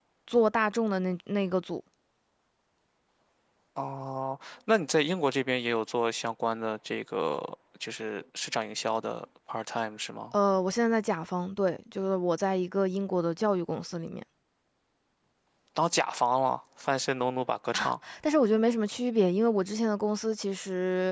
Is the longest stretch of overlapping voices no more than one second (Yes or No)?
Yes